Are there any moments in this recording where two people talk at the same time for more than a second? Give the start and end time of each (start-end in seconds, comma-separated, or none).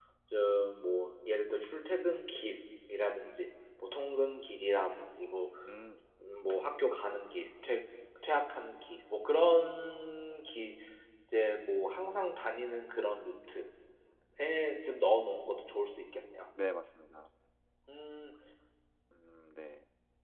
none